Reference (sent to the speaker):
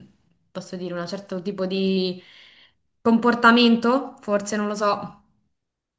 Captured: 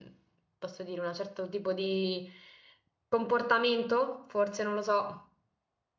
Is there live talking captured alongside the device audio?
No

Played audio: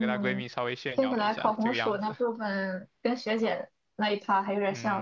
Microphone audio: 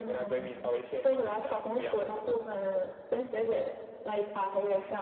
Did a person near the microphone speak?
No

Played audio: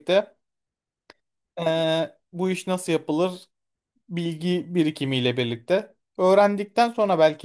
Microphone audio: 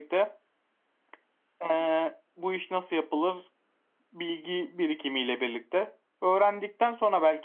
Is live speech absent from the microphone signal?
Yes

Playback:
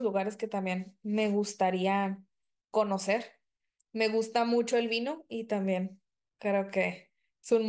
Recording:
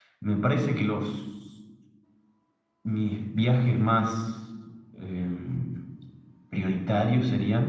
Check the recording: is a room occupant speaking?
Yes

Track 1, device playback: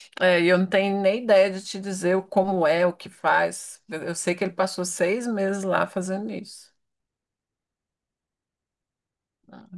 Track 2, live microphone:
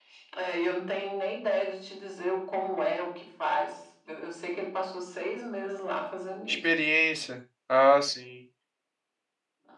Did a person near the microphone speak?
Yes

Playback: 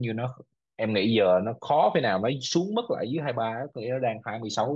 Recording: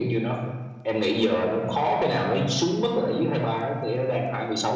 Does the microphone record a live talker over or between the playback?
No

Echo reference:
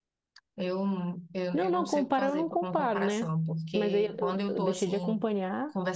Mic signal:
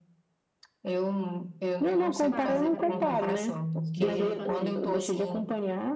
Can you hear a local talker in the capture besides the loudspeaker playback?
Yes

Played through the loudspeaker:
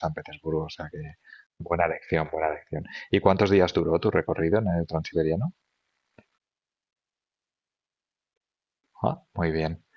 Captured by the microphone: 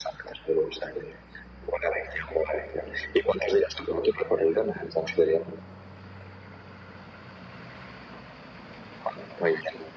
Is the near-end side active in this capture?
No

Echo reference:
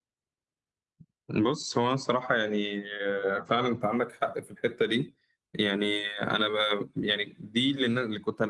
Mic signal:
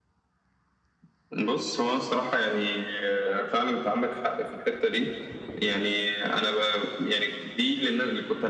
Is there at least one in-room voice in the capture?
No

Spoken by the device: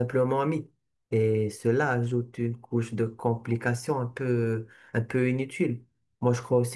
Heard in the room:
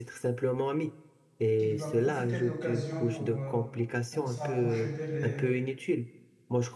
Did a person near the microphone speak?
Yes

